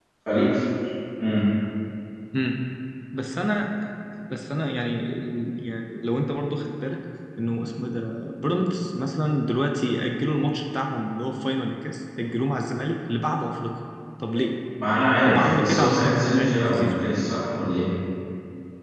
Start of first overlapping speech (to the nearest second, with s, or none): 15 s